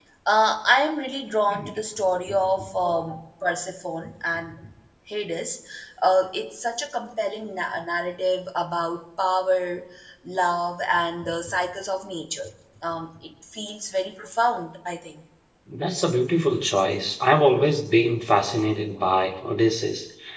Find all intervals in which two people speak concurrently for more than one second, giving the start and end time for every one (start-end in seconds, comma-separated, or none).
none